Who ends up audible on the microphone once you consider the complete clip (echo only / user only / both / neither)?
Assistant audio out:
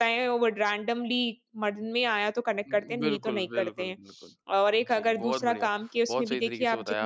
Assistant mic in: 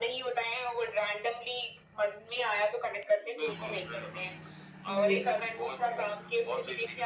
both